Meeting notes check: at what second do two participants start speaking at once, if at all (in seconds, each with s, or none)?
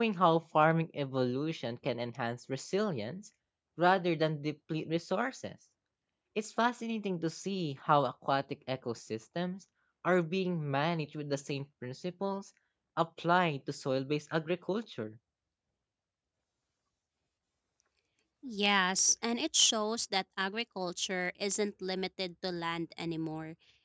none